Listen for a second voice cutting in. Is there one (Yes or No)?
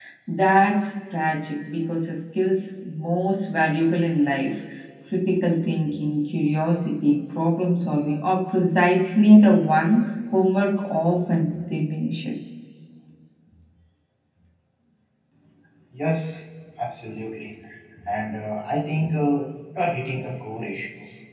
No